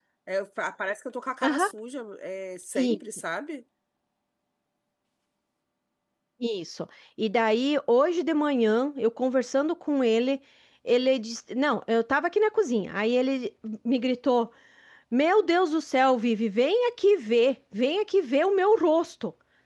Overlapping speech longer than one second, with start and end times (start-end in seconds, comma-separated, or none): none